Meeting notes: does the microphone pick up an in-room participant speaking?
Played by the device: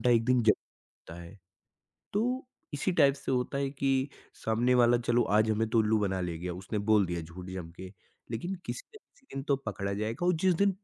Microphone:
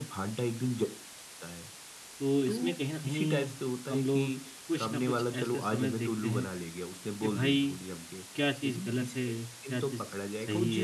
Yes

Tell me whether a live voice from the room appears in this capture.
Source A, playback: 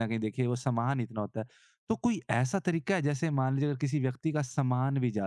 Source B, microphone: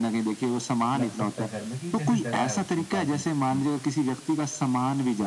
Yes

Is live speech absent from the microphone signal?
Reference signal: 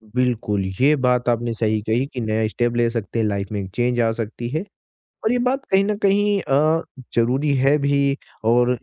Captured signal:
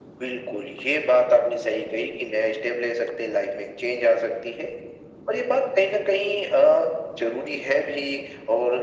Yes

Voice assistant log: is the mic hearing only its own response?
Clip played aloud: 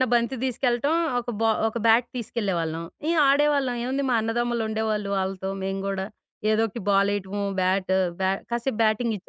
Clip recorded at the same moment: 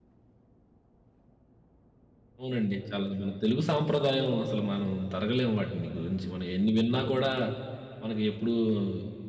No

